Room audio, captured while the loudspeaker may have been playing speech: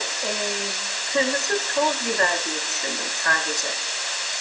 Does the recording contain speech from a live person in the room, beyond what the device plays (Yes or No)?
No